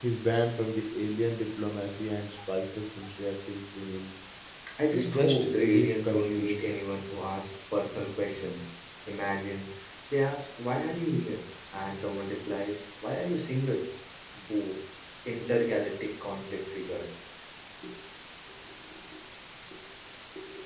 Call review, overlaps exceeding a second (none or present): present